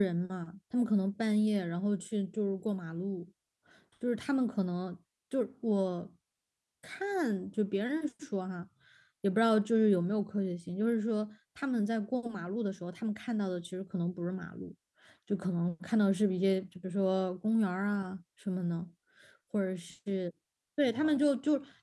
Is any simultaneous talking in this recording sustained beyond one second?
No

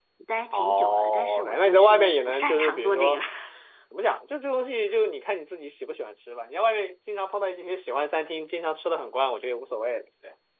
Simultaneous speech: Yes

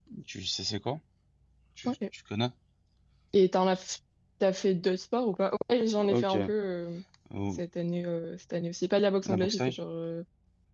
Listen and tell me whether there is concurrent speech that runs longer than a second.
No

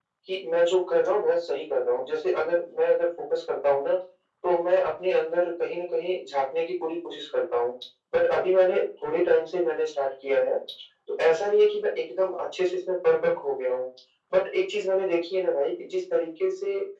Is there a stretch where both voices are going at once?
No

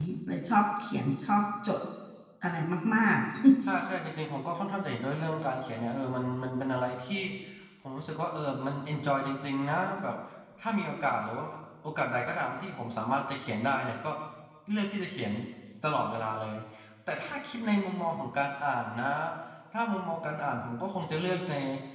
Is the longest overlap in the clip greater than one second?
No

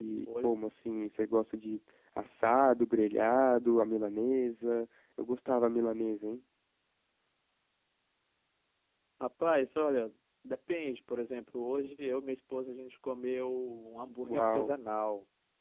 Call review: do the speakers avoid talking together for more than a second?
Yes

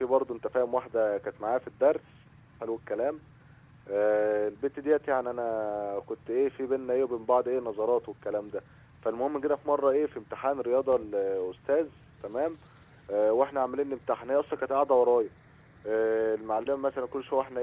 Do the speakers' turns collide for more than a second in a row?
No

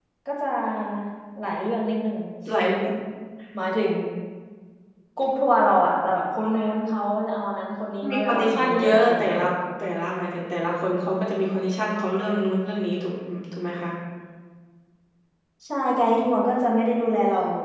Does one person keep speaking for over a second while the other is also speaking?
Yes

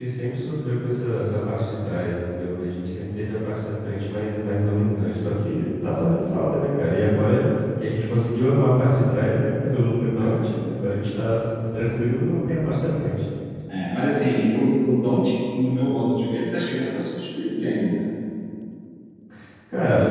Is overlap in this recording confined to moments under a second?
Yes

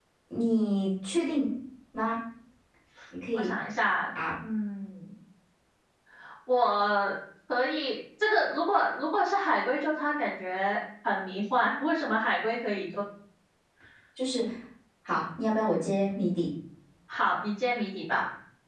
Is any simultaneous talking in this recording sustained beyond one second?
No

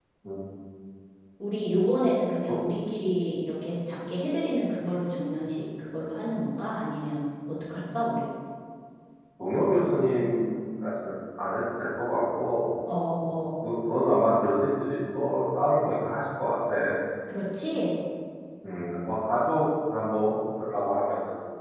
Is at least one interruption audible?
No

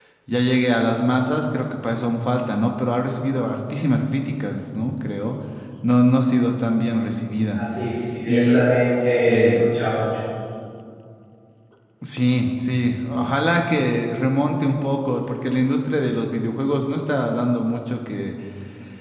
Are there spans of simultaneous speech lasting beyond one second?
No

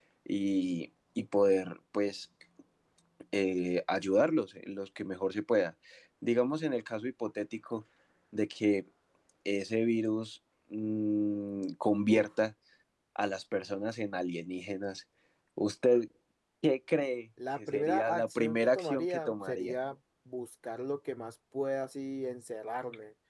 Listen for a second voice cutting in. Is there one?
Yes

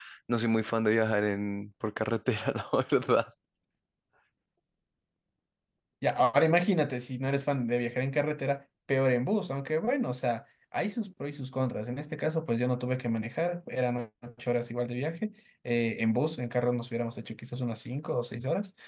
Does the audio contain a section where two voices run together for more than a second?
No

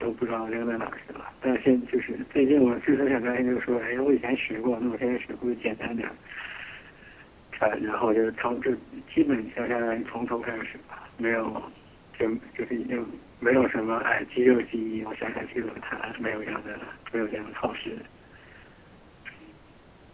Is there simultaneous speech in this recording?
No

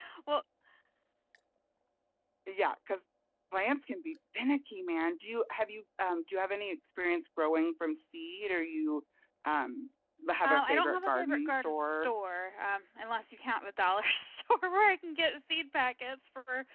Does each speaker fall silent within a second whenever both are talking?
No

